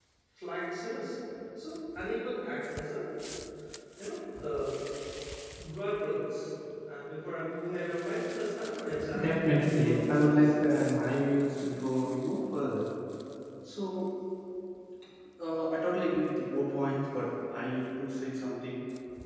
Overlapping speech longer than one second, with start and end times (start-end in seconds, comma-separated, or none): 9.2-10.5